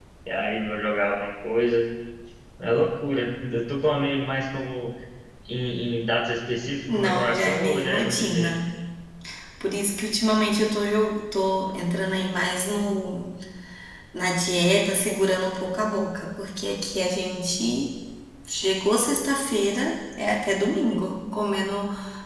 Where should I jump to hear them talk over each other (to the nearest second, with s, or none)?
7 s